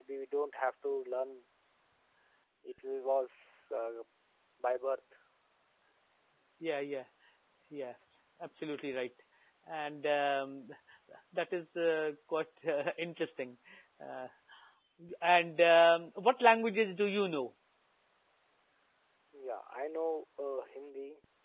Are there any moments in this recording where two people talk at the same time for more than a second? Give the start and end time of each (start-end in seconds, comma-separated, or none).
none